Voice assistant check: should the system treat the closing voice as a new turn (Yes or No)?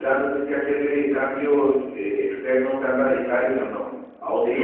Yes